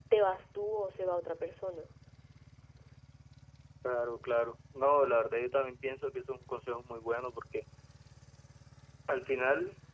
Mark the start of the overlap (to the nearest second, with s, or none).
none